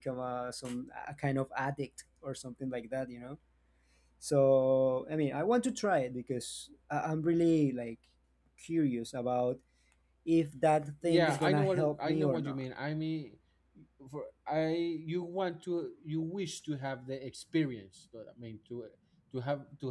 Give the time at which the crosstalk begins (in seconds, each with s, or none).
11.0 s